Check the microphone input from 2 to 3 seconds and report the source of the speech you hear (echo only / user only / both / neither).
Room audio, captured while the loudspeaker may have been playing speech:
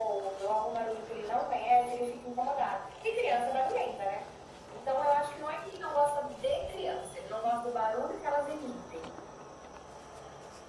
echo only